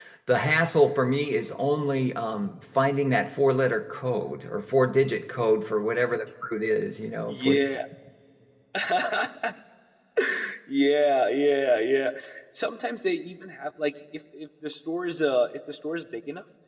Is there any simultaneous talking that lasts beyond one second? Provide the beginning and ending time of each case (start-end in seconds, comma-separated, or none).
none